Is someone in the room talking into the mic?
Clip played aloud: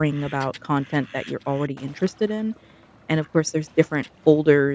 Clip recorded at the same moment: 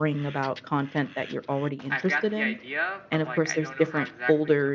Yes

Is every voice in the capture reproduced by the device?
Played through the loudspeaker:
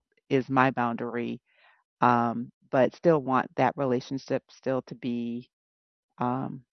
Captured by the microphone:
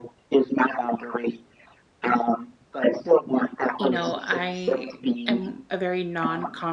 No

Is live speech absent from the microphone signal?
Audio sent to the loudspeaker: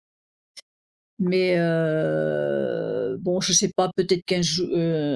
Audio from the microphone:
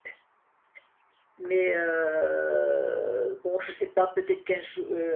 Yes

